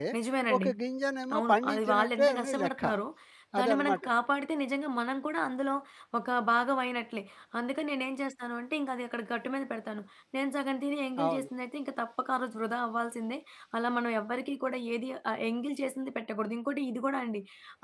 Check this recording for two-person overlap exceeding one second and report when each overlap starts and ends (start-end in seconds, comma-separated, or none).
1.4-2.8